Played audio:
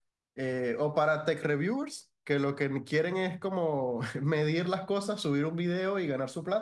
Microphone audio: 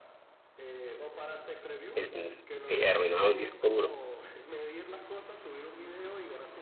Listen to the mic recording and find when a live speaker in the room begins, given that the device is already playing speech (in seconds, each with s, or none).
1.9 s